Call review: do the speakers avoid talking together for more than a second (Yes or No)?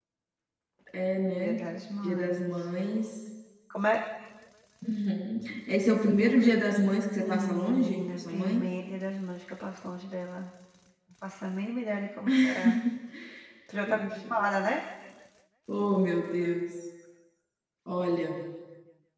No